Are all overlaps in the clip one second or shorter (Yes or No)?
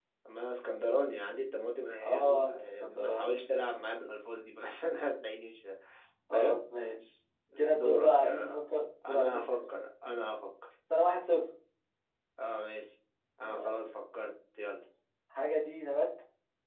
No